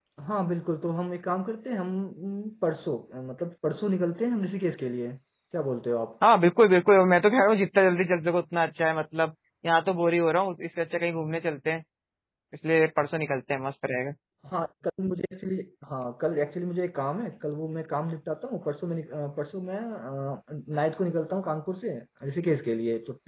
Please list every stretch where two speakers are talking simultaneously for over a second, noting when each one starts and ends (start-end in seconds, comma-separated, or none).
none